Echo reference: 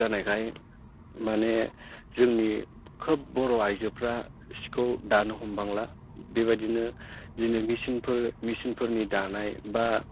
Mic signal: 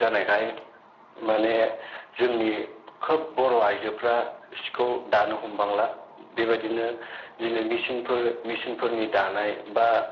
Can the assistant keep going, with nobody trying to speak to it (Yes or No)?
Yes